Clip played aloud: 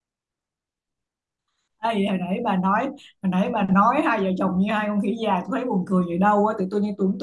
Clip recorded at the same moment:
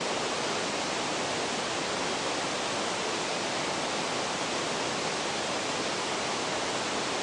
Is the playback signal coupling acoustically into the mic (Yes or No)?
No